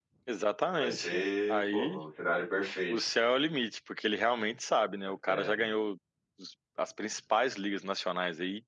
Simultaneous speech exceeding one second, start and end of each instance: 0.8-2.0

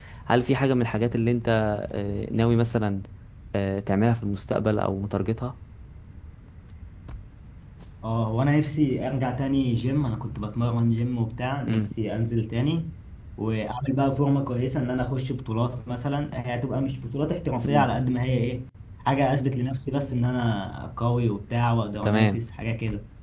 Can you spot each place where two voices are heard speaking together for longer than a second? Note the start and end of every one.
none

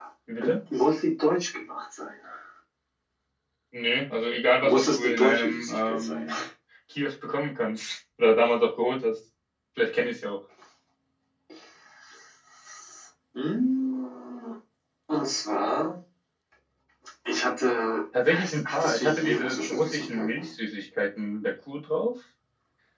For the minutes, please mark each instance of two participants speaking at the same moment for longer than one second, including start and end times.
4.6-6.3, 18.3-20.5

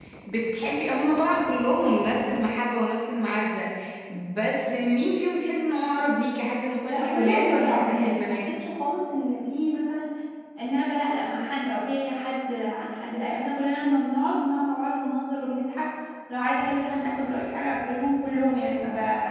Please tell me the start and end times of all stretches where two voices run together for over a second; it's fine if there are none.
6.8-8.5

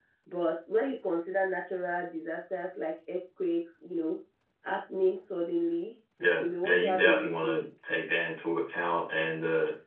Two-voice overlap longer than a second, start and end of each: 6.4-7.7

